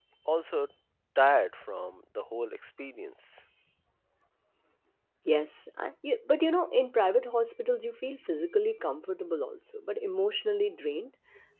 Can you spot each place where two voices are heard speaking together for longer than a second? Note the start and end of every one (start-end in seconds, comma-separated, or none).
none